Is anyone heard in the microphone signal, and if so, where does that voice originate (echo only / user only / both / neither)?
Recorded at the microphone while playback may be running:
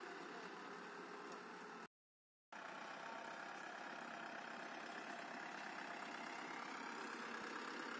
neither